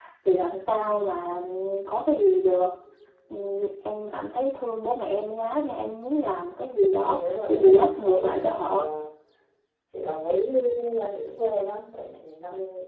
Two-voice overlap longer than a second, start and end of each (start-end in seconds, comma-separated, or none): 7.0-8.8